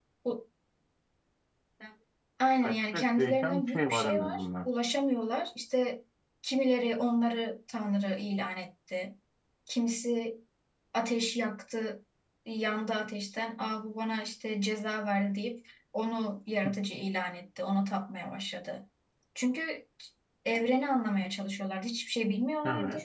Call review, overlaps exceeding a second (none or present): present